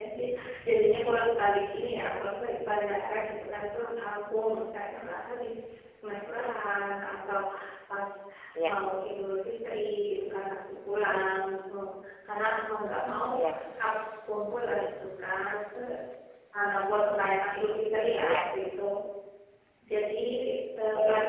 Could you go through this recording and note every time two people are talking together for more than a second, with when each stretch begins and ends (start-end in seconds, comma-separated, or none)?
none